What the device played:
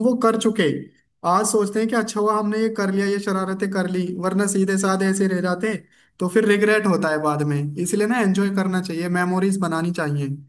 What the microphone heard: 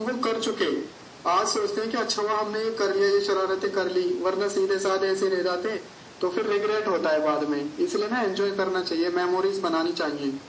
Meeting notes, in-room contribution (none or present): none